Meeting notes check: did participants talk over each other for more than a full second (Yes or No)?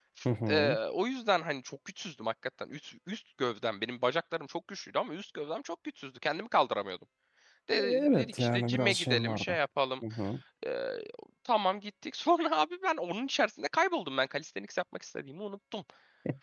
Yes